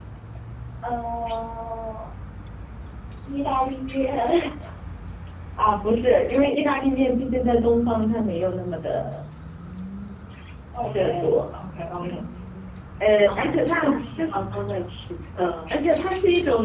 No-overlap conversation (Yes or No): No